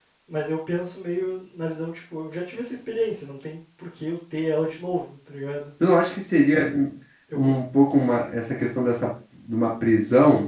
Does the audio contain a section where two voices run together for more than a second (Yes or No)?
No